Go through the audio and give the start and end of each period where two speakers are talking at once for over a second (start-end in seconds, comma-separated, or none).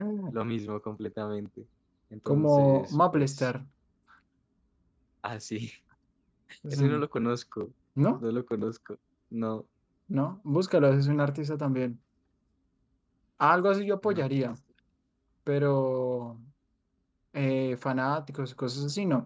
2.3-3.5